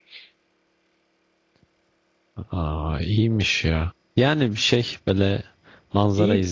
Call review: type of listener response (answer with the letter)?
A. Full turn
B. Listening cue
B